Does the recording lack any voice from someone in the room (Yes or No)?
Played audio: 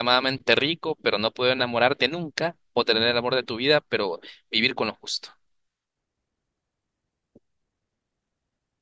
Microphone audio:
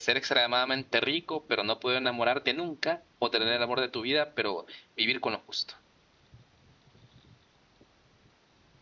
Yes